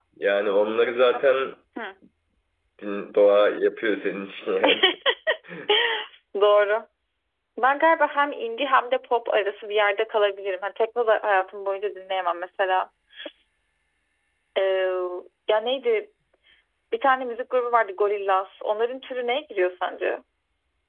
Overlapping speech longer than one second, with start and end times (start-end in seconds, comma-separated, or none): none